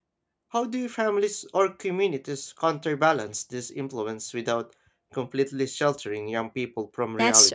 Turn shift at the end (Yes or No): Yes